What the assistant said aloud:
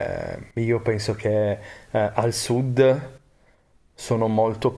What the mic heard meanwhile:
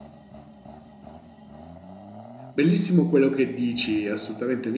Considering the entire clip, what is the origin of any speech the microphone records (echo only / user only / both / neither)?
user only